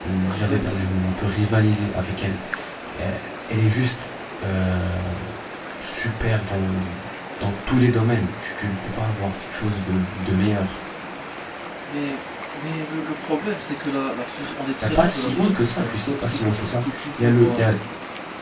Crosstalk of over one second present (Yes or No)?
Yes